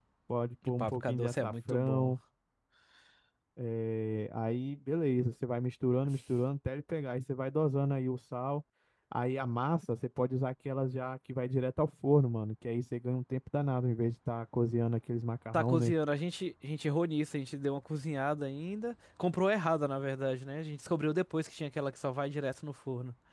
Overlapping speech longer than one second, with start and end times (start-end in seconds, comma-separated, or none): 0.8-2.2